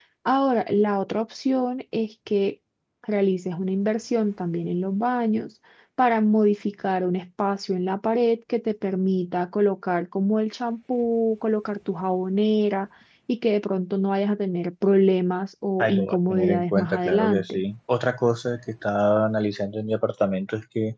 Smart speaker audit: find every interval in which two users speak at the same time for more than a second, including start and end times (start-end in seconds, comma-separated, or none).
15.8-17.6